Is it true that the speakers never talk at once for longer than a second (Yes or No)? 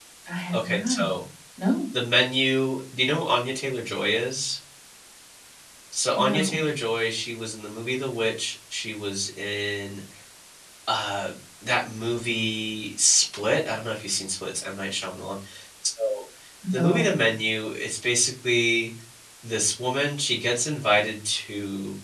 Yes